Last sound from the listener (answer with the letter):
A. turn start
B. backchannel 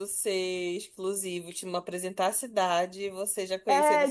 A